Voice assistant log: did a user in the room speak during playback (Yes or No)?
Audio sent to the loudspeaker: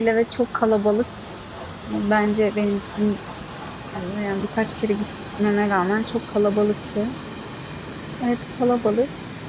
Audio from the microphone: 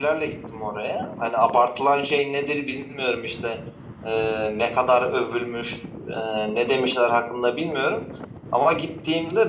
Yes